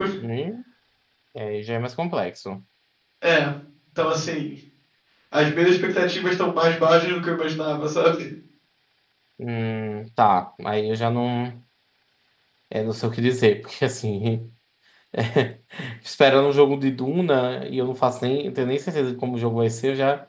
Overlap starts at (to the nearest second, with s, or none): none